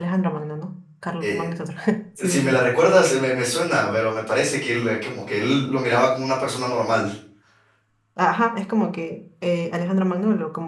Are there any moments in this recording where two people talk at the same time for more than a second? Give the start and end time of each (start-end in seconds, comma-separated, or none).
none